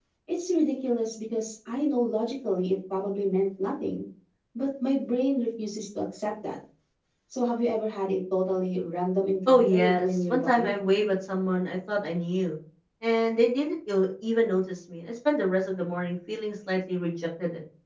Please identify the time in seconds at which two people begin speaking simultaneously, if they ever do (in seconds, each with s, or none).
9.5 s